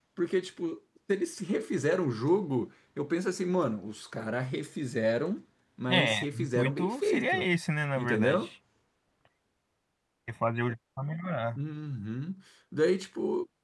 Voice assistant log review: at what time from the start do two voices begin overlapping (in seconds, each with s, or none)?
5.9 s